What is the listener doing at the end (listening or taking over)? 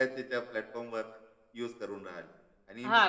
taking over